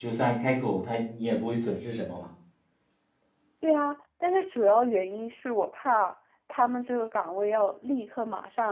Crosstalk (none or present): none